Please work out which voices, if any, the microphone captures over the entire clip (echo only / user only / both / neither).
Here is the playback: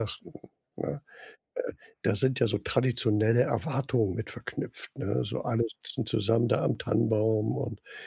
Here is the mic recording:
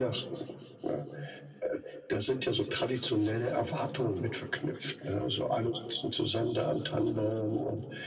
echo only